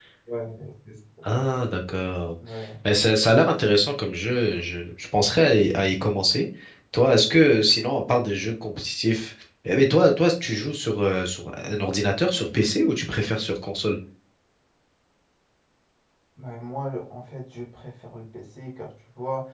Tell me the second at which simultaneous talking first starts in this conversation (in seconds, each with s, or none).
none